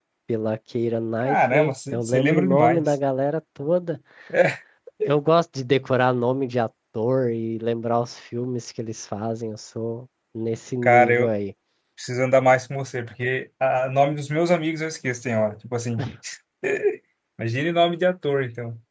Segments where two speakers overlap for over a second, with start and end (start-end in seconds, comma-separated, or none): 1.2-2.9